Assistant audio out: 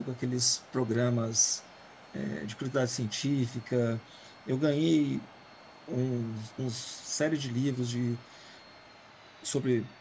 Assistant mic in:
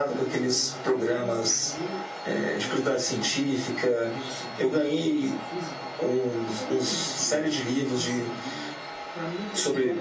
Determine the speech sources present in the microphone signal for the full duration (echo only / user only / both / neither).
both